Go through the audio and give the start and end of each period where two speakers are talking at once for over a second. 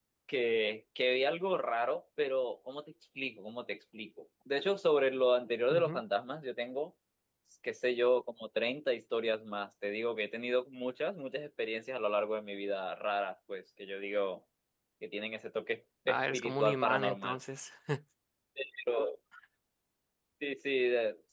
16.1-17.4

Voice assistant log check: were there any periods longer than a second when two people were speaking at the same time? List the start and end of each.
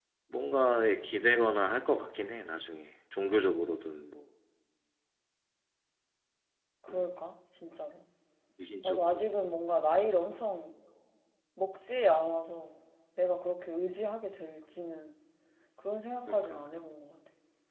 none

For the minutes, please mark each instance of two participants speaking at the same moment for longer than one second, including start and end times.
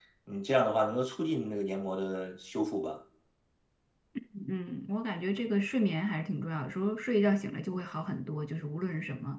none

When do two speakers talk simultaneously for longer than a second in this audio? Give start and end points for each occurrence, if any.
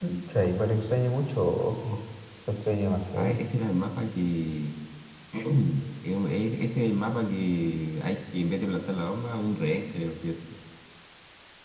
none

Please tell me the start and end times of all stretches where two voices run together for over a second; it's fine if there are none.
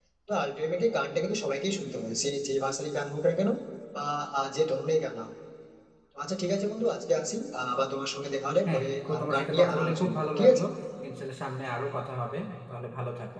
8.7-10.6

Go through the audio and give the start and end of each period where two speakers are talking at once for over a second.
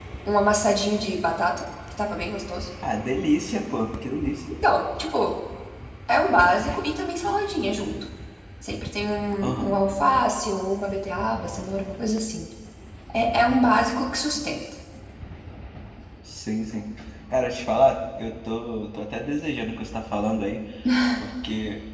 none

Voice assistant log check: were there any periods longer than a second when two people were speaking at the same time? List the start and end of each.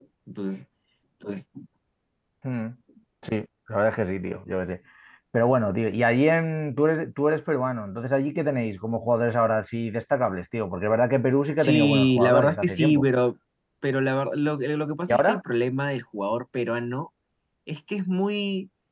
11.6-13.0

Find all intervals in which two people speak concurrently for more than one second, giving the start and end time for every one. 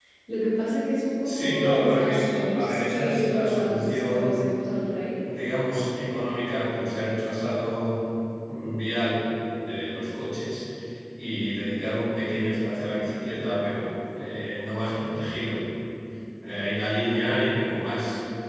1.2-4.5

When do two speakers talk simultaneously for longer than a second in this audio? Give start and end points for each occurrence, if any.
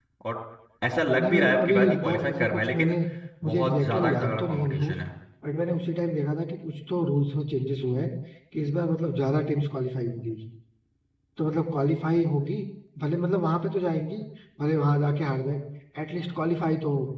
1.2-2.9, 3.4-5.0

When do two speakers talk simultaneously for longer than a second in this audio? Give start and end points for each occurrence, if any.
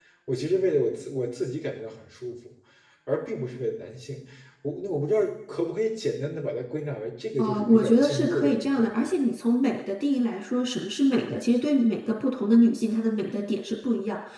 7.4-9.1

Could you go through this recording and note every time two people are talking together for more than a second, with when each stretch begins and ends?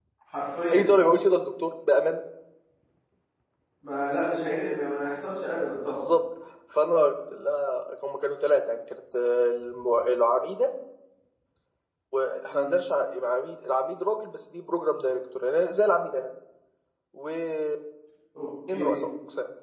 none

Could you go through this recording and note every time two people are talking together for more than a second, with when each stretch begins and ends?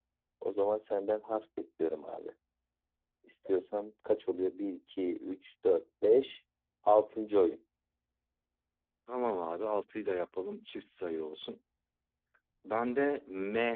none

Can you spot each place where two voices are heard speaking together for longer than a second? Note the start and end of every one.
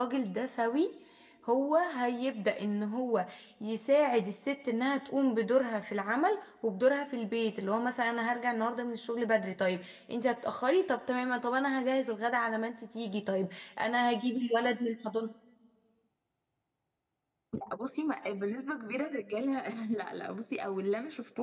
none

